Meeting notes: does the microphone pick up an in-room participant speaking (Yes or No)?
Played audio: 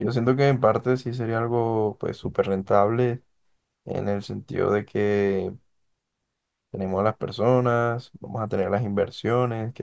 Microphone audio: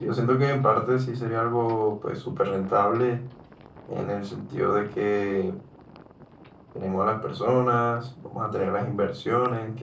No